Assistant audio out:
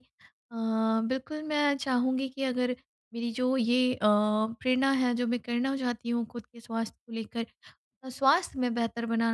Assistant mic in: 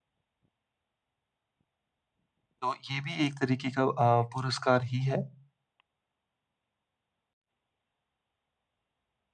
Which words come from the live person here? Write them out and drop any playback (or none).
तो ये भी एक तरीके का अ, पुरस्कार ही है